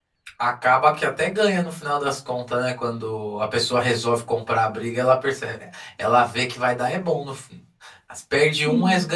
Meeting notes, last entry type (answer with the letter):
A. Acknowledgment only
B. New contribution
A